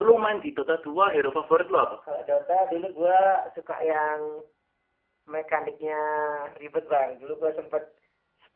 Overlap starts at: none

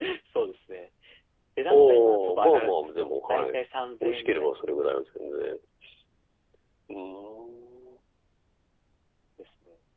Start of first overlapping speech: 1.7 s

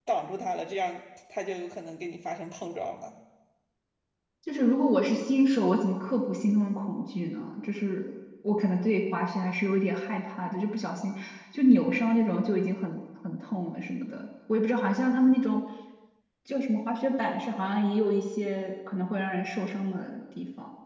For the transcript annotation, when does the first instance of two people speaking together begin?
none

